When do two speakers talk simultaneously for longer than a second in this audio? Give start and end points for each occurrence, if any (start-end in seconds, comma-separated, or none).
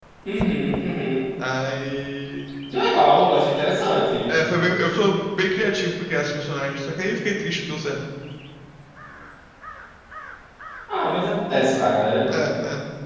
none